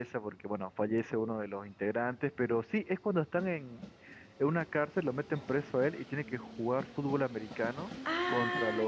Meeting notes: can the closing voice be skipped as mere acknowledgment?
No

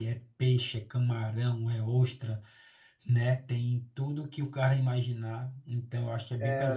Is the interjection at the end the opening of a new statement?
Yes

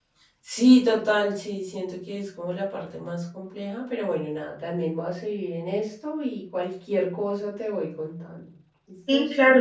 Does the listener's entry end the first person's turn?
Yes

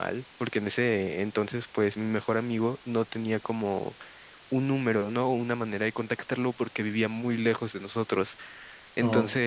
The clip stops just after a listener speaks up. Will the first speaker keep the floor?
Yes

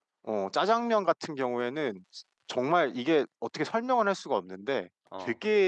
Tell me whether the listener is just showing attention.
Yes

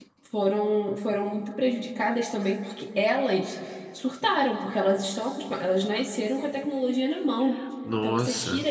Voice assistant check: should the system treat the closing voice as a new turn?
No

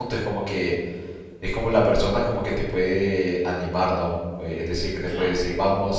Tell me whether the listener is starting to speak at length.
No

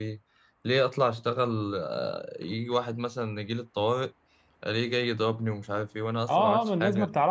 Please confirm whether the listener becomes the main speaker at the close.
Yes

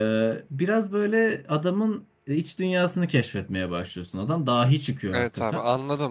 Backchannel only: No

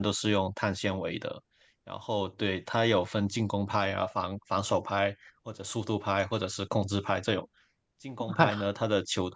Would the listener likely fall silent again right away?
Yes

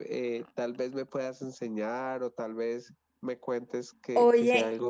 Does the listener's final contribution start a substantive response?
Yes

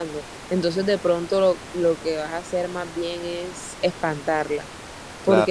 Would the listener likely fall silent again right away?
Yes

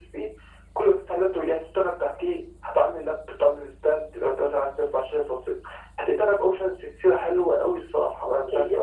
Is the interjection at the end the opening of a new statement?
Yes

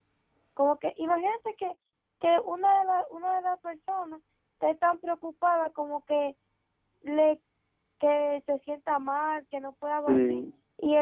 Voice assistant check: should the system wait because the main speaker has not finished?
Yes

